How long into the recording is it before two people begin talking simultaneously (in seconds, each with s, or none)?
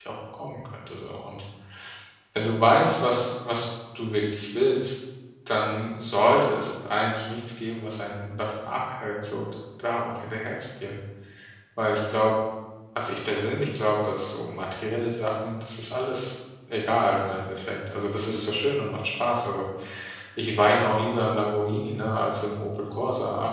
none